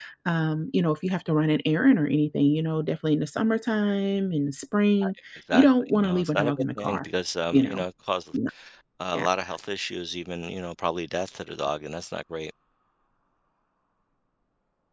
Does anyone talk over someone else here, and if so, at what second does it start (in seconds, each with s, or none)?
5.5 s